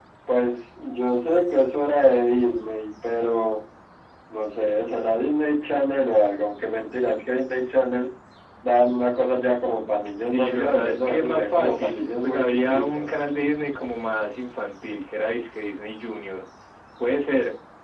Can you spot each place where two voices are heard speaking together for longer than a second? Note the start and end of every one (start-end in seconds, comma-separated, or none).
10.2-13.1